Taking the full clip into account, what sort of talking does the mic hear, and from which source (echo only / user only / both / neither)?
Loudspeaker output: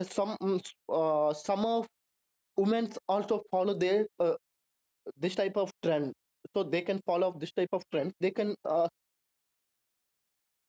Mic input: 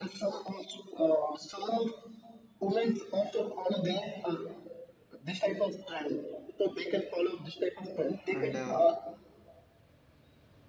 both